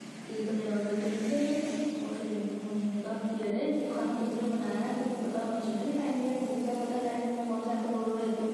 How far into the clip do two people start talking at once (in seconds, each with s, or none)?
none